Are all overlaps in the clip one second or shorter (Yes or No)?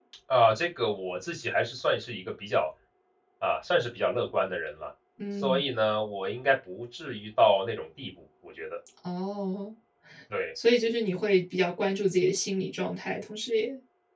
Yes